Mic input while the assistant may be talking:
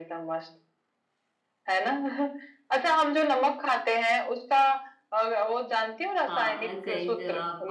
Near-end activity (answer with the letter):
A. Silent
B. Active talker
B